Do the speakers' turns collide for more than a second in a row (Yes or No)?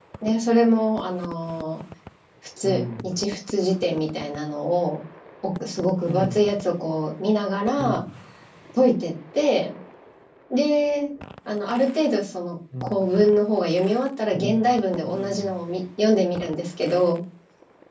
No